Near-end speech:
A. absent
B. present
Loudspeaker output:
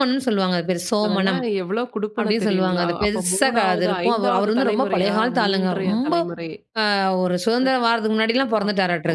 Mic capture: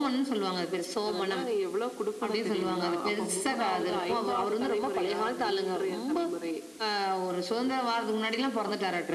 A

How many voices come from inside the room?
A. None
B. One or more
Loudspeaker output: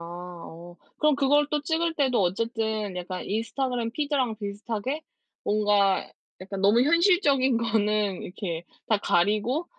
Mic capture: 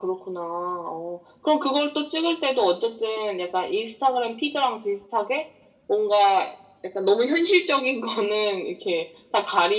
A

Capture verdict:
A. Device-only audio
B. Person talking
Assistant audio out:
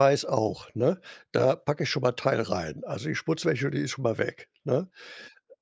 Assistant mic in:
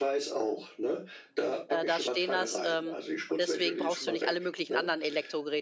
B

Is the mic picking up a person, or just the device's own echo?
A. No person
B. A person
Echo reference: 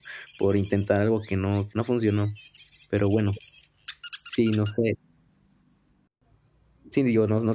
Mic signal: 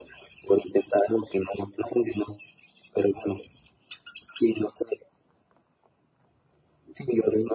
A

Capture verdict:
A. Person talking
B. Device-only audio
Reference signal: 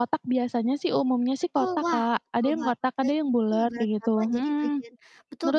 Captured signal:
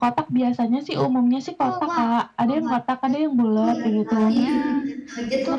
A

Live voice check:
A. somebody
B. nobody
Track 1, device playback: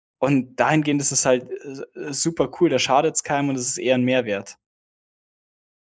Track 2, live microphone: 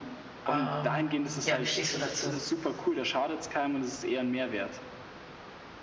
A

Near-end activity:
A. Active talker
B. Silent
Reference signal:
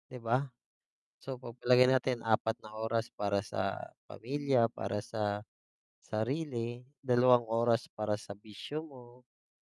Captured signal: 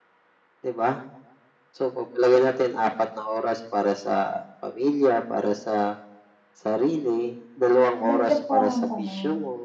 A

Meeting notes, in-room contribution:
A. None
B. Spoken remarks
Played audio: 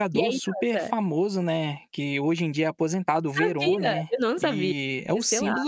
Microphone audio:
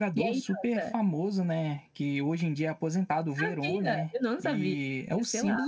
A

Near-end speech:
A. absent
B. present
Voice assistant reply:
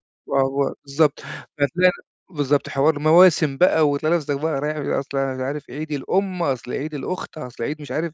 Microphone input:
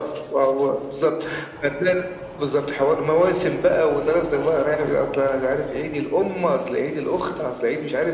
A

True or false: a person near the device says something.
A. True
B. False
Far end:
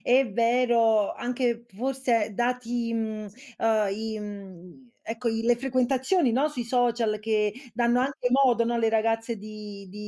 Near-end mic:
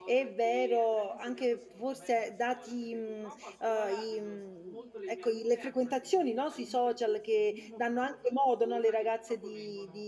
A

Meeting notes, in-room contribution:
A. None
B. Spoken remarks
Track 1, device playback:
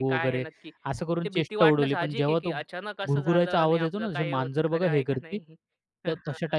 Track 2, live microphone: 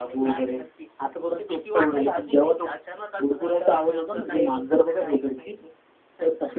A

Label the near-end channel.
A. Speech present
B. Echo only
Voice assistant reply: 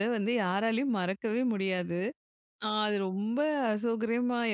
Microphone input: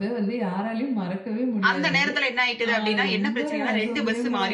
A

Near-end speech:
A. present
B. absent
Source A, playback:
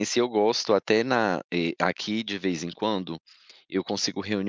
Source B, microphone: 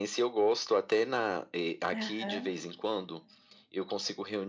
A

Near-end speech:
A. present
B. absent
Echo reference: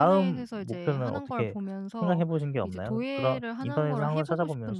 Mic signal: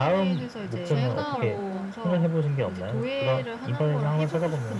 A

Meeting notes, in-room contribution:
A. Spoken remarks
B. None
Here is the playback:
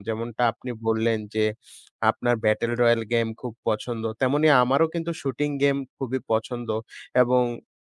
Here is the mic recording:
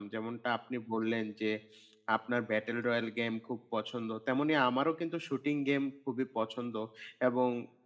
B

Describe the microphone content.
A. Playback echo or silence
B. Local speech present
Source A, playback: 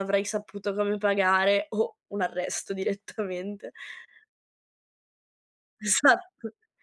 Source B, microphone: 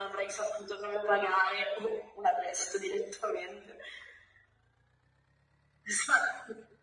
A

